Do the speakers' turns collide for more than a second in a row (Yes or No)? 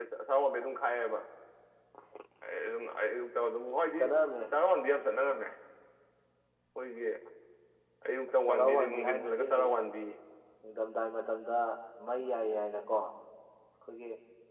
Yes